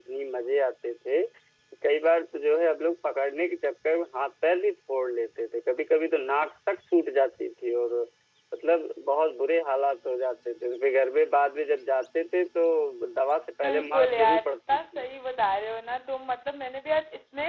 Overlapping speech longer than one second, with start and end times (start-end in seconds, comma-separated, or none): 13.6-15.1